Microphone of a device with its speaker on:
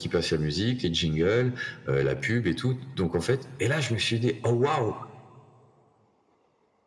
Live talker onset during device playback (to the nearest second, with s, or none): none